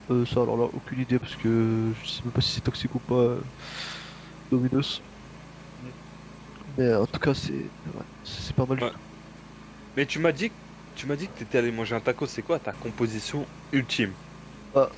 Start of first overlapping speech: none

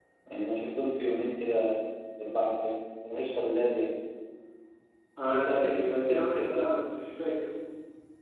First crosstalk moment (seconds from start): 5.3 s

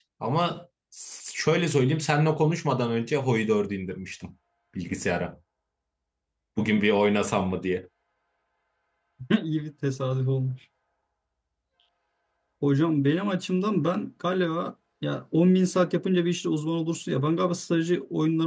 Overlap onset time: none

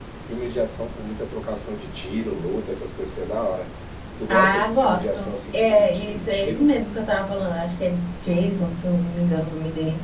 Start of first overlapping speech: 4.3 s

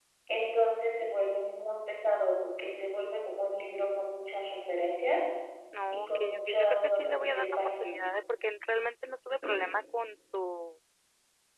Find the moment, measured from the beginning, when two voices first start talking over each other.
5.9 s

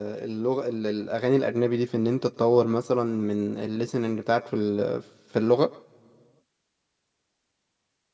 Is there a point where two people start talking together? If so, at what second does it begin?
none

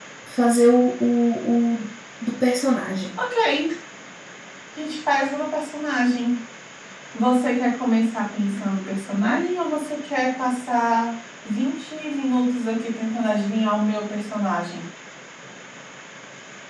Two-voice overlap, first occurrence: none

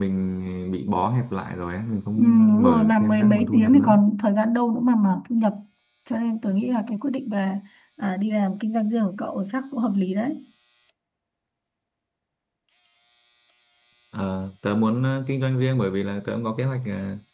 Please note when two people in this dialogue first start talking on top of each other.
2.1 s

